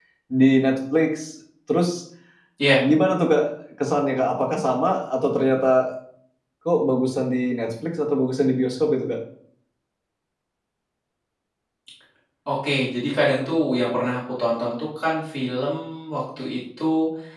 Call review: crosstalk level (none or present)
none